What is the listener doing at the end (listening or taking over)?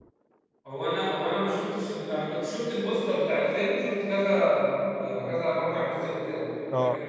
listening